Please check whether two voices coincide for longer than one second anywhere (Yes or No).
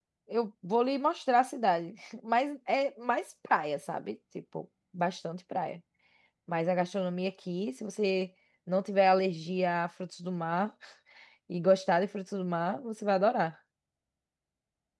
No